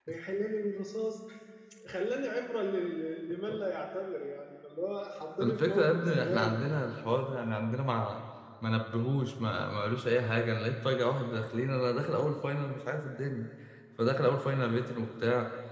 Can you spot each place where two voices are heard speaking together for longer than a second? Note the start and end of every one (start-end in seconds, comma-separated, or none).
5.4-6.6